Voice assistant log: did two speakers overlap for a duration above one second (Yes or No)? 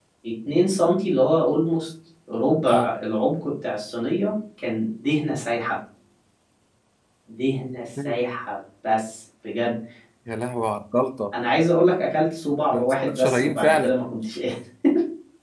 Yes